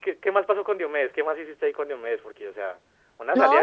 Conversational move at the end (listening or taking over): taking over